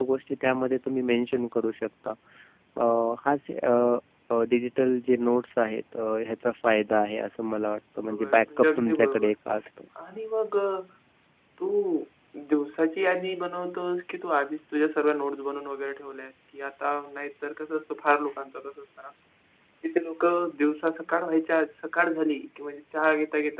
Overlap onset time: 8.1 s

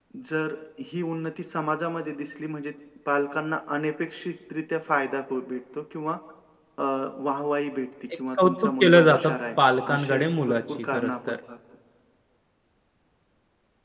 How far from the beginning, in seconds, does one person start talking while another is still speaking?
8.3 s

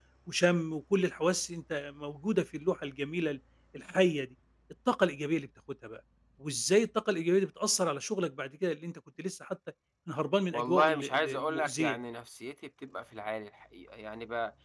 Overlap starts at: 10.5 s

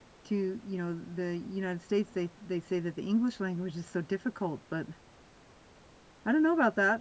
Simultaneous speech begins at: none

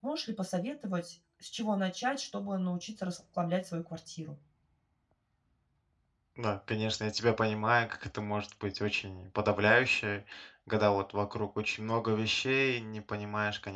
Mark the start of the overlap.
none

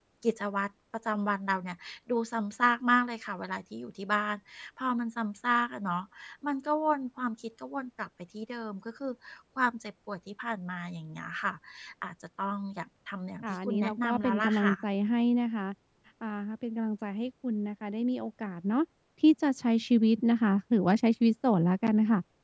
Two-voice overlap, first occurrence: 13.4 s

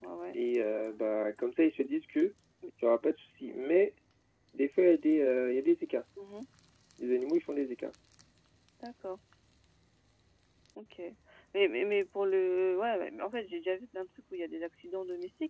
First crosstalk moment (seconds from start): none

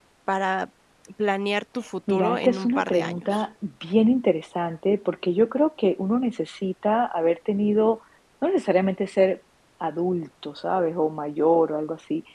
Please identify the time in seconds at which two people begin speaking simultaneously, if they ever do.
2.1 s

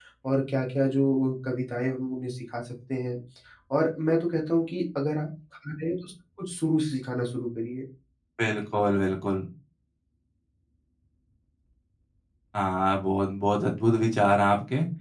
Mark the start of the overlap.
none

